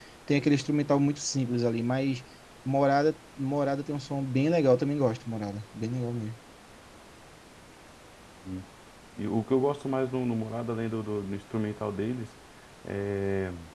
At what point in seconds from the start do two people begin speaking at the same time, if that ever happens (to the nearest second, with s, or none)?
none